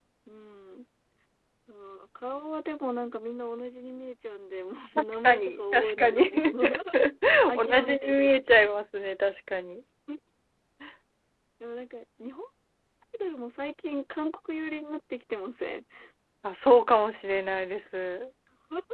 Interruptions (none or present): present